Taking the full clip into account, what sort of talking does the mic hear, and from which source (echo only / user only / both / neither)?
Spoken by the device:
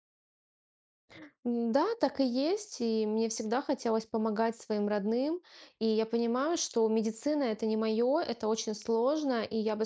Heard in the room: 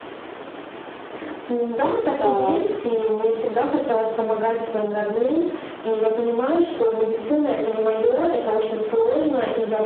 both